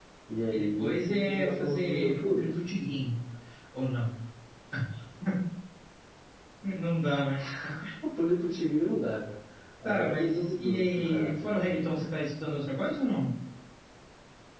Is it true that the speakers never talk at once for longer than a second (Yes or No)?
No